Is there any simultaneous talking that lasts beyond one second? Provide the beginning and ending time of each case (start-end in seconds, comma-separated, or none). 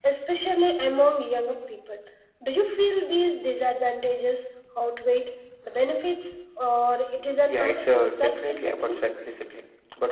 7.5-9.0